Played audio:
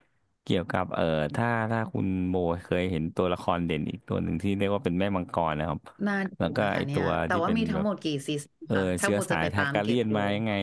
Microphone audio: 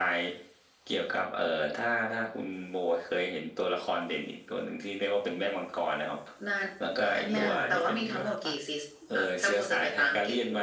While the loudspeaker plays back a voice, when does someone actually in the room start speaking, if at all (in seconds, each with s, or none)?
7.3 s